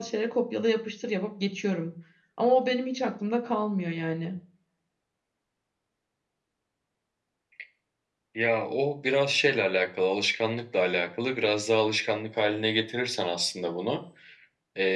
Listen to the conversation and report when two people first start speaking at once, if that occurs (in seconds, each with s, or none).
none